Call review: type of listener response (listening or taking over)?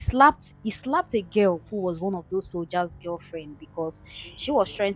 listening